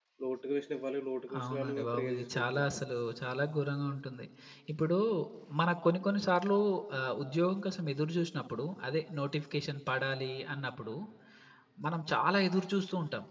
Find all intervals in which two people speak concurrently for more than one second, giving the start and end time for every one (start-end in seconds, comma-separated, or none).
1.4-2.7